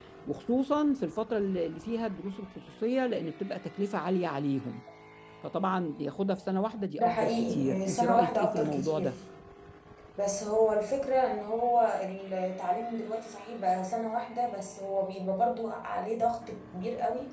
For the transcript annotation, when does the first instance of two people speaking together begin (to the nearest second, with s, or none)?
7 s